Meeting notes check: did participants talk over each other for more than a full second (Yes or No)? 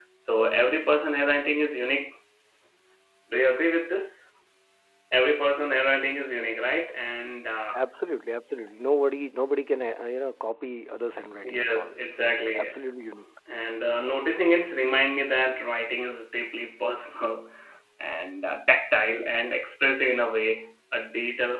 No